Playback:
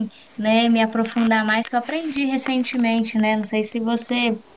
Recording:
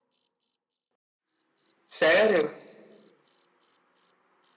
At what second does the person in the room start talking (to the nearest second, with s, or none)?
2 s